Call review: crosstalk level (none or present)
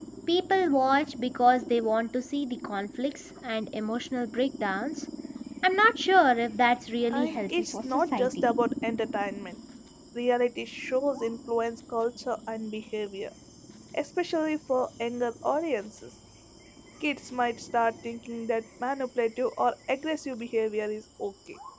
present